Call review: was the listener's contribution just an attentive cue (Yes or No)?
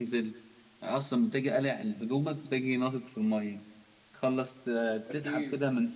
Yes